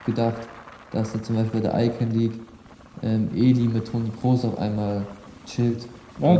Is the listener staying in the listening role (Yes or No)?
No